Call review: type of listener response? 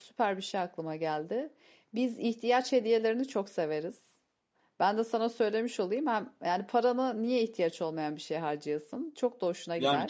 taking over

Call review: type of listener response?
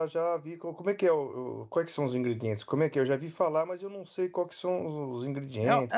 taking over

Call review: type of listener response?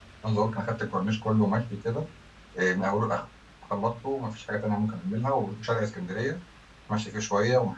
listening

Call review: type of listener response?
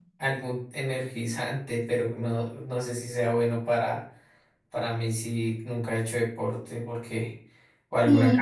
taking over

